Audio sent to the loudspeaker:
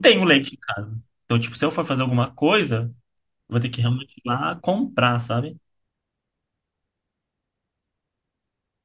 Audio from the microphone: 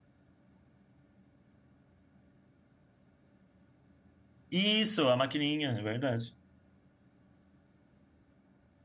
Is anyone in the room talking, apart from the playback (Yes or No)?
Yes